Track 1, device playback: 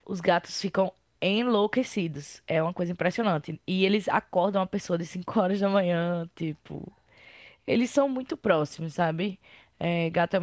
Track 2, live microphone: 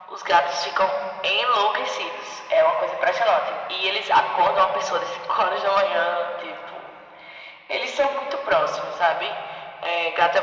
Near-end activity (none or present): none